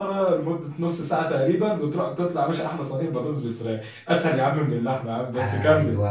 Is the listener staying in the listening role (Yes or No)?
No